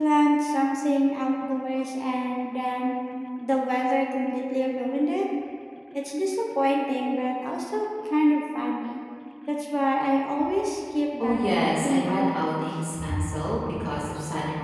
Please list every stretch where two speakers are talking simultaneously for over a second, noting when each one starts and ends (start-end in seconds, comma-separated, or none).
11.2-12.6